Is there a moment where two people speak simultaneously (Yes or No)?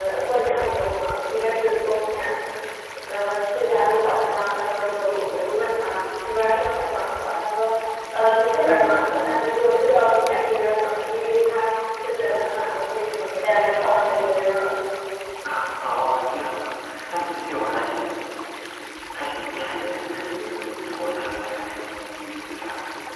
No